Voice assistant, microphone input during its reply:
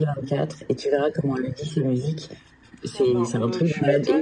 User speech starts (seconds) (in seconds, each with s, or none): 2.9 s